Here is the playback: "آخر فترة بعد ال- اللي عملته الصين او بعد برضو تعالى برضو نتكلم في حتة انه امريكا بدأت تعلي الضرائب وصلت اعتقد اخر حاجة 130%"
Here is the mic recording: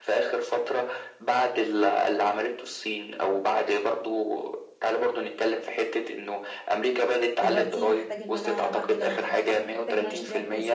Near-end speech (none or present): present